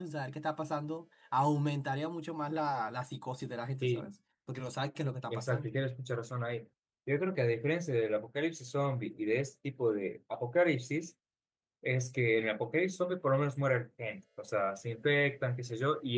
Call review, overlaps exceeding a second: none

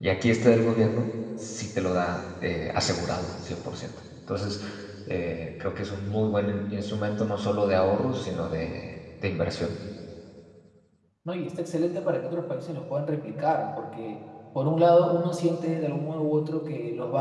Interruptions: none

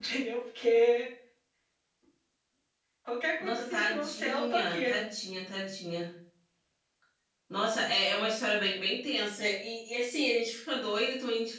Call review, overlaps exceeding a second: present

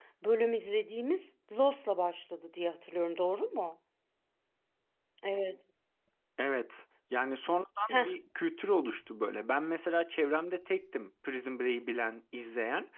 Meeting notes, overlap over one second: none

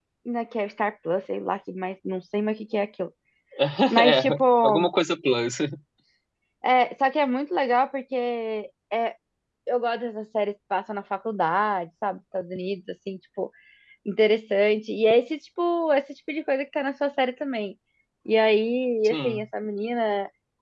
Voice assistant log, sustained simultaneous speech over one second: none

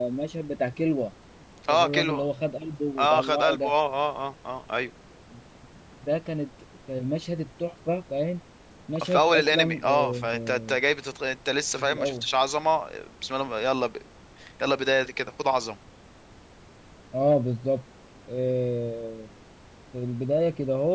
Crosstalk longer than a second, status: present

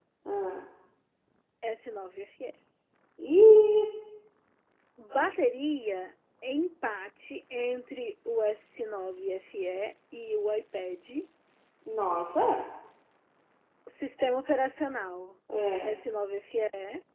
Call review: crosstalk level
none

